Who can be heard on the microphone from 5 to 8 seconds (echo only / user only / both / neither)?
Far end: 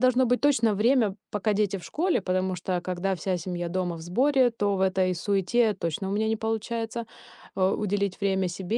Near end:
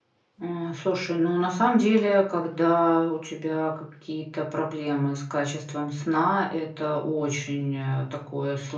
user only